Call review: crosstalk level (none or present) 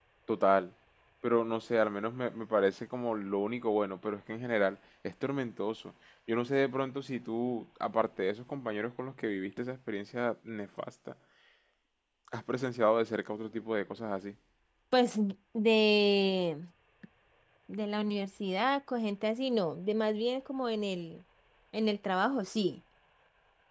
none